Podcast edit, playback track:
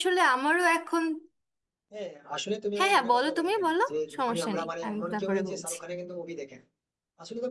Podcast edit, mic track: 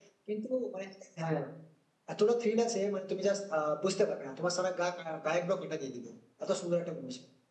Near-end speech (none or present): present